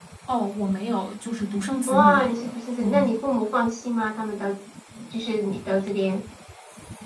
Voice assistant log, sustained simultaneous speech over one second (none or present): none